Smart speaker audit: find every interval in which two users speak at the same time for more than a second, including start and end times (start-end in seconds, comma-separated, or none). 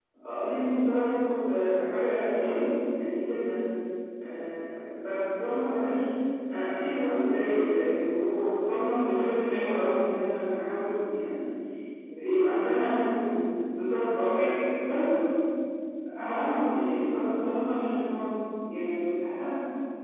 none